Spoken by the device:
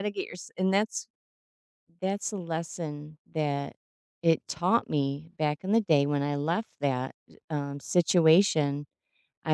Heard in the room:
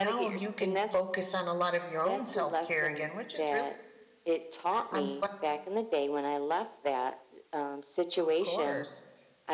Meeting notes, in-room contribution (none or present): present